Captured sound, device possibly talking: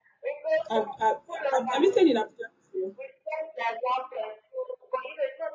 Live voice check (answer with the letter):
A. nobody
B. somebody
B